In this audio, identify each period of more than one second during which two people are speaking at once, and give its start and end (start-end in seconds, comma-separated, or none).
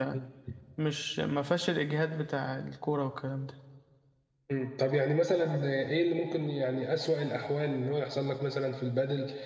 none